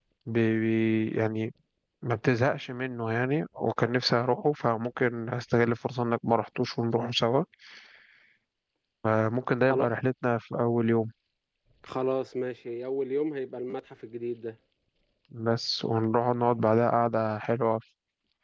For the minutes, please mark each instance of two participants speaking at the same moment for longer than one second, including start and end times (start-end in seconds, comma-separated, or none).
none